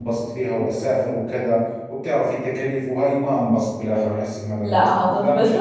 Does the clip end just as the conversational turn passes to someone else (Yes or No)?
Yes